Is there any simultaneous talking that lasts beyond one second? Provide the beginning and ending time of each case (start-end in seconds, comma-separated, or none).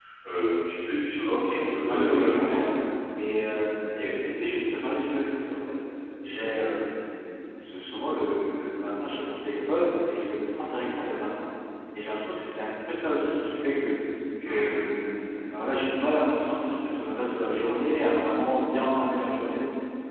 1.2-2.6